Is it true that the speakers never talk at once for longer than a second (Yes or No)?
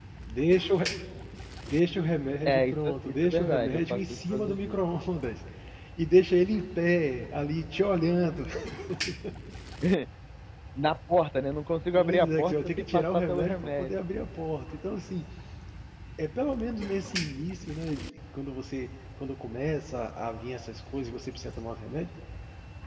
No